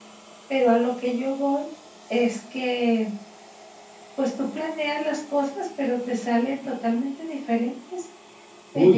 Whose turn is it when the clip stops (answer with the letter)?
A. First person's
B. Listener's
A